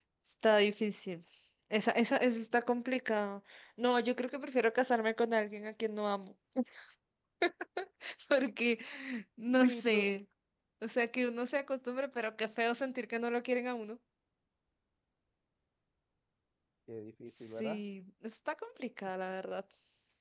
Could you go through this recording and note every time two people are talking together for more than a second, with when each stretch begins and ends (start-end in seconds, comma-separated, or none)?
none